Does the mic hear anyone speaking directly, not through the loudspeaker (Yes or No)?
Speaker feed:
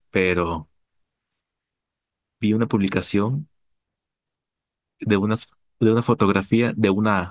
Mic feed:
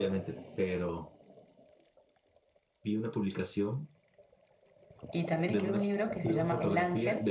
Yes